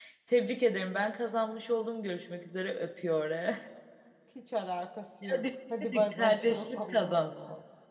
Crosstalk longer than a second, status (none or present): present